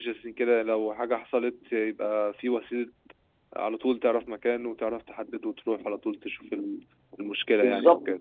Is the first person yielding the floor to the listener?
Yes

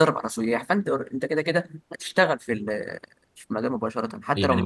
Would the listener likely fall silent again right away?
No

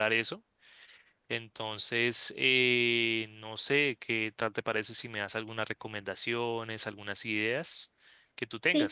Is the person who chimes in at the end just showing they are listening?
No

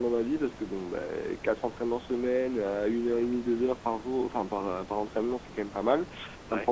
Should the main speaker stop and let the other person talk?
No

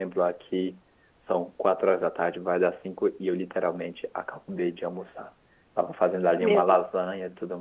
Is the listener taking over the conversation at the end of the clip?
No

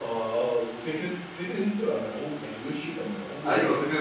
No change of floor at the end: No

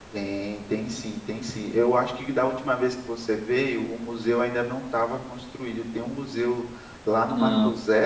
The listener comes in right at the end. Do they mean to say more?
No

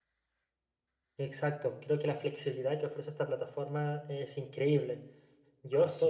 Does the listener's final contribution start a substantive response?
No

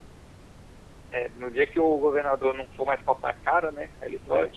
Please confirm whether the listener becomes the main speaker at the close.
No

